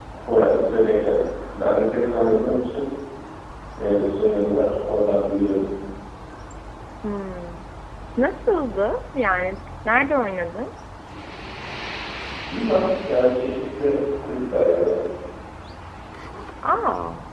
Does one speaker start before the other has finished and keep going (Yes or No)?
No